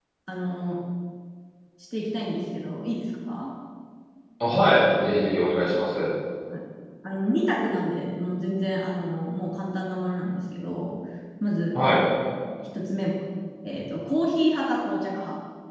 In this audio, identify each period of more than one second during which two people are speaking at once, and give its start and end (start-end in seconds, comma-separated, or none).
none